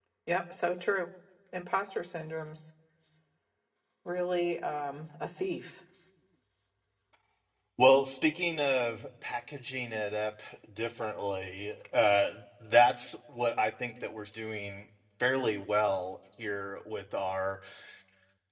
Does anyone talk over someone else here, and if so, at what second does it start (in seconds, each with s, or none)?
none